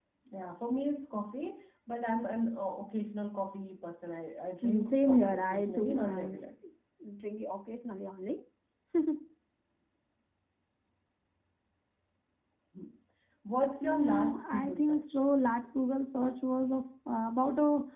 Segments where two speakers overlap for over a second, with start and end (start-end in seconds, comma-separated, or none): 4.6-6.5, 13.8-15.3